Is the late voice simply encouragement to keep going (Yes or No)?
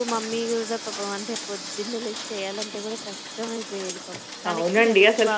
No